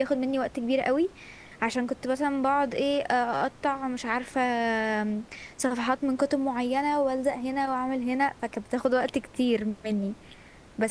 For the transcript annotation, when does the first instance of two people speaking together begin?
none

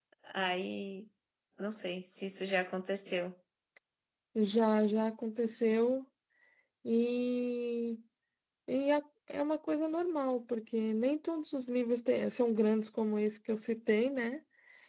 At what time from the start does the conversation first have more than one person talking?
none

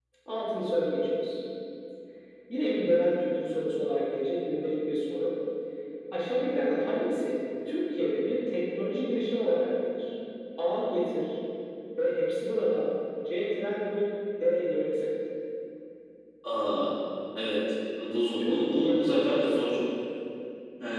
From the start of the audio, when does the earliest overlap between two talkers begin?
18.4 s

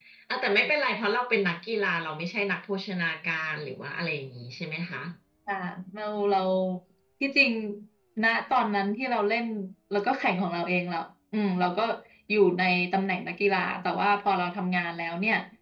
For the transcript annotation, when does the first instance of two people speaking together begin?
none

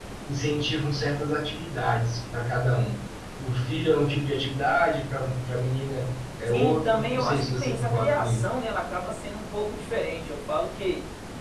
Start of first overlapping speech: 6.5 s

